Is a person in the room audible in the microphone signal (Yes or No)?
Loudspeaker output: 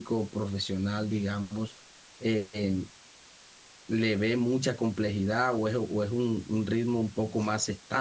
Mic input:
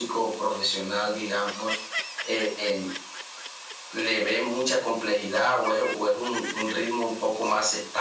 No